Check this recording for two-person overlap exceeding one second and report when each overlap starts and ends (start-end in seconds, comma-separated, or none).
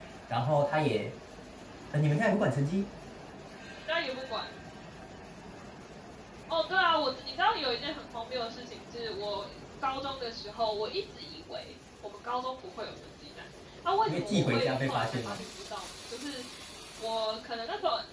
14.1-15.4